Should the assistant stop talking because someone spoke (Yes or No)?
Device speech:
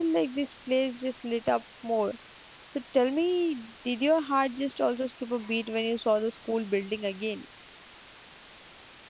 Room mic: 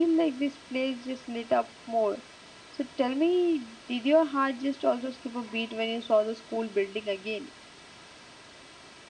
No